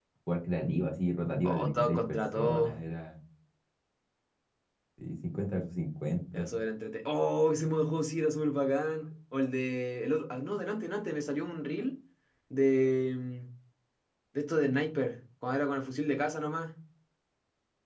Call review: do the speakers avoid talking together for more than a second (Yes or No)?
No